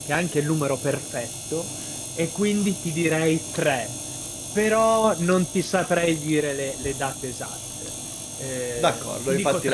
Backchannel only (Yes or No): No